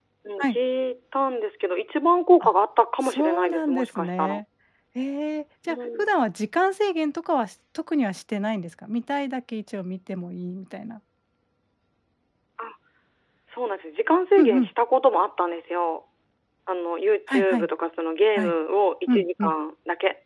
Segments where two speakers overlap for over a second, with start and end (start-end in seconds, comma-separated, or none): 3.0-4.4